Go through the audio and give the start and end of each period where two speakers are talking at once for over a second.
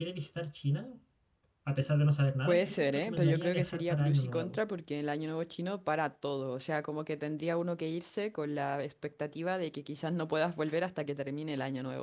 2.5-4.6

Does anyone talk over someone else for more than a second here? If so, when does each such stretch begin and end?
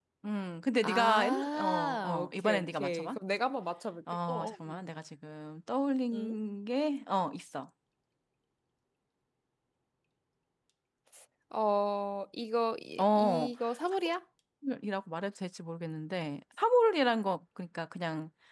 0.8-3.1

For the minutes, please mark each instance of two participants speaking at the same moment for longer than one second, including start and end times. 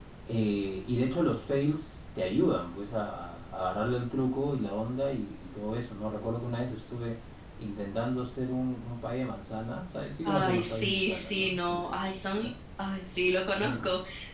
10.2-12.5

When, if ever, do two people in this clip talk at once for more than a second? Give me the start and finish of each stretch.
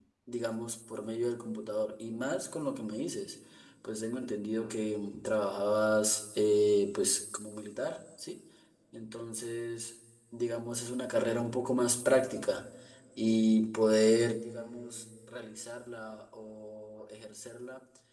none

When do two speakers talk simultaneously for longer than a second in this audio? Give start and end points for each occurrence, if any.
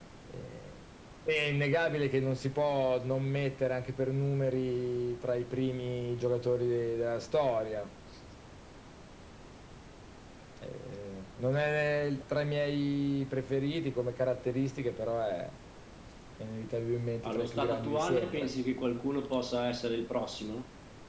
17.3-18.5

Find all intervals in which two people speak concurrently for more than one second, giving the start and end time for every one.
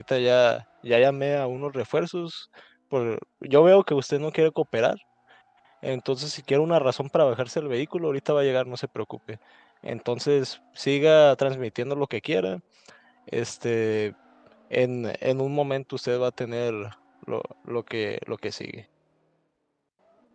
none

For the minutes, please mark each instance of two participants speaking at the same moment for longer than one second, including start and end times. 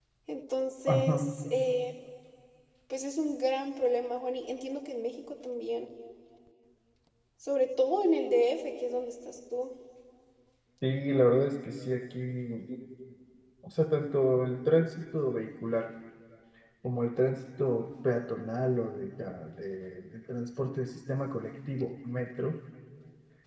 none

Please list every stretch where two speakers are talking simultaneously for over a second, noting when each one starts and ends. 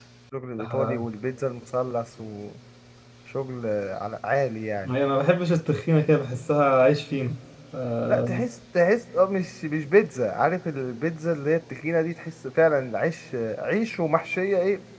none

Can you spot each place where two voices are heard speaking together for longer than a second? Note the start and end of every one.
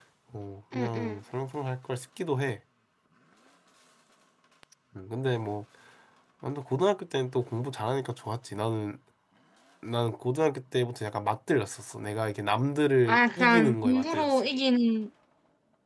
13.1-14.4

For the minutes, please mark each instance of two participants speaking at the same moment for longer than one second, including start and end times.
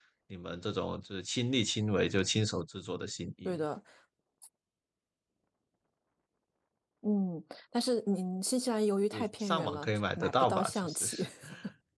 9.1-11.1

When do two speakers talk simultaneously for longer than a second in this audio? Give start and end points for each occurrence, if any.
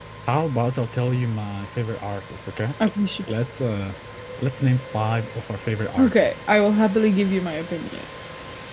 none

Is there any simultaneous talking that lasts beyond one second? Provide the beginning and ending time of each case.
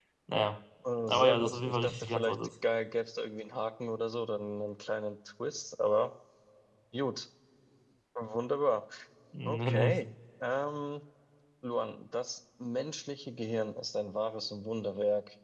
1.1-2.4

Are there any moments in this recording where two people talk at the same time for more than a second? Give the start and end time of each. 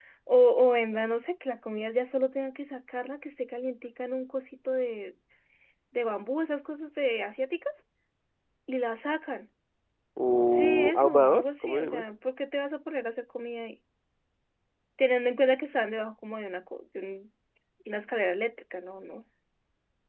10.5-12.0

